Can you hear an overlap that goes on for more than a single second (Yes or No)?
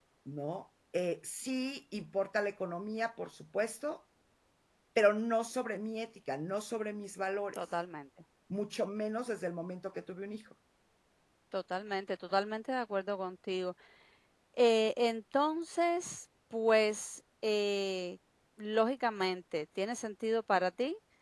No